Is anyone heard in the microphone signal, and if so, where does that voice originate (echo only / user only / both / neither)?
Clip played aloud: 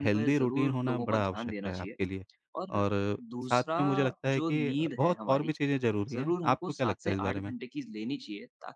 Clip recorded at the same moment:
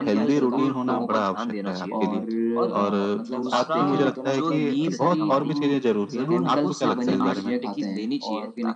both